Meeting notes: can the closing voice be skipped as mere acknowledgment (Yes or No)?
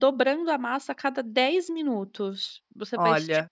Yes